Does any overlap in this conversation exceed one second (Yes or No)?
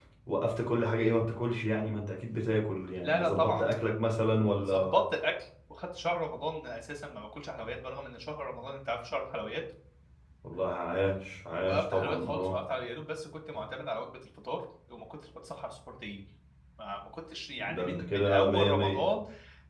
Yes